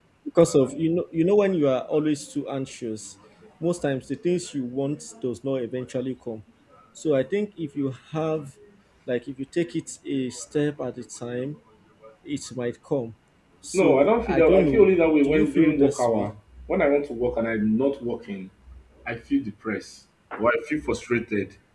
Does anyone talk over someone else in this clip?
Yes, from 13.7 s

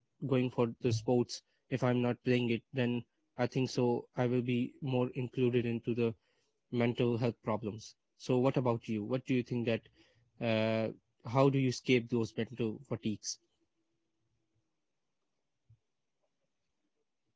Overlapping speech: No

